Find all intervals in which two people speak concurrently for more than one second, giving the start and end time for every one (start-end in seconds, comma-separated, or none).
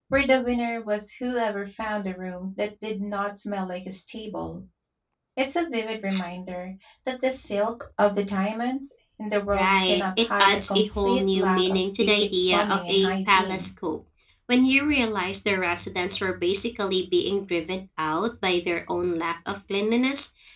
9.5-13.7